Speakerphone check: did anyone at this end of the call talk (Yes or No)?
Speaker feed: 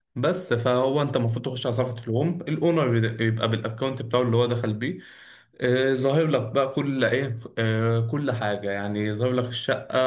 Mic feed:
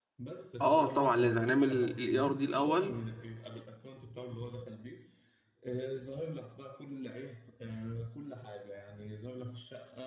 Yes